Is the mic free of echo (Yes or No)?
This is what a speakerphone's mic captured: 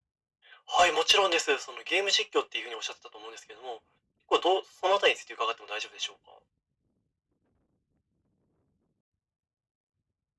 No